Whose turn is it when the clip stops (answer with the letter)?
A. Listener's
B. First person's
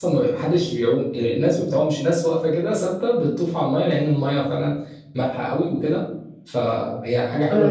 A